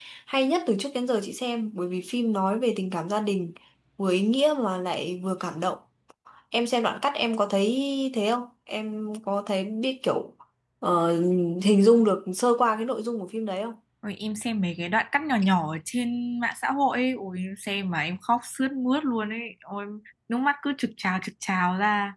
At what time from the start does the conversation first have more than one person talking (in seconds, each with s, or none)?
none